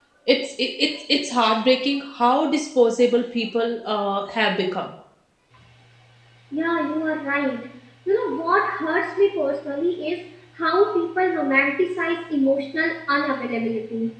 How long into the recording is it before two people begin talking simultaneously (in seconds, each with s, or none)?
none